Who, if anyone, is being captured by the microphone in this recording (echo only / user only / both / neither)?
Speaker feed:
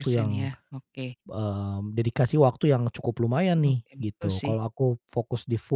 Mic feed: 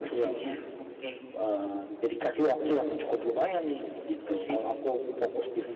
echo only